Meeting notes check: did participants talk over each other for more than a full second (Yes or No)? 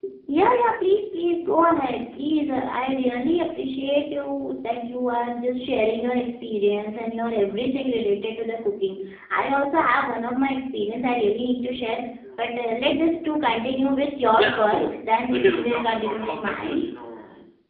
Yes